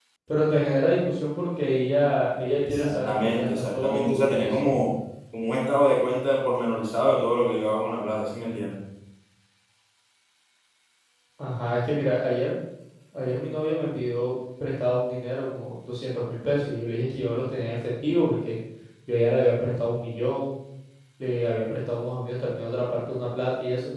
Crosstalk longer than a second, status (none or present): present